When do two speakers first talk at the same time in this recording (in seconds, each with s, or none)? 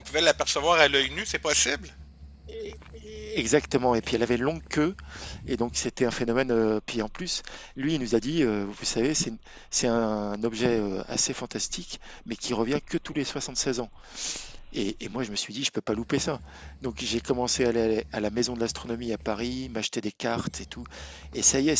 none